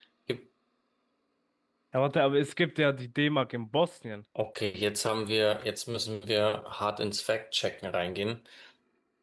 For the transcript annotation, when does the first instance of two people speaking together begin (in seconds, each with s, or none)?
none